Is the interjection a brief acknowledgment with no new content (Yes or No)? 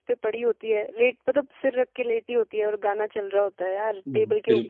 No